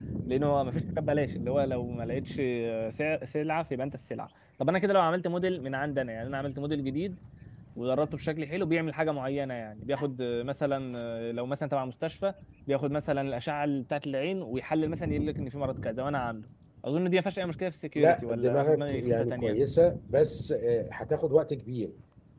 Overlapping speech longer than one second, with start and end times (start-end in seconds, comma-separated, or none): 18.0-19.6